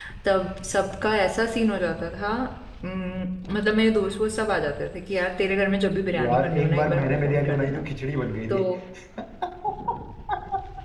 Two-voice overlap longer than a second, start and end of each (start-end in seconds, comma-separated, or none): 6.2-7.9